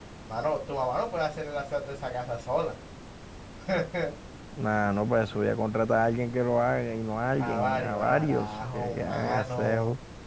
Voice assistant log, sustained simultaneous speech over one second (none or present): present